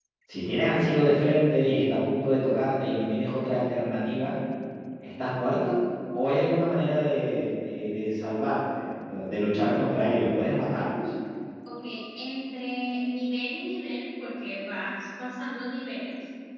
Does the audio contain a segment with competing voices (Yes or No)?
No